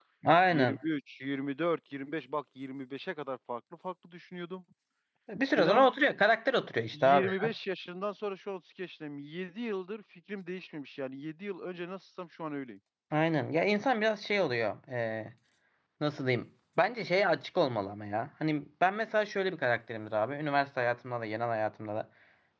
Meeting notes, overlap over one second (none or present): none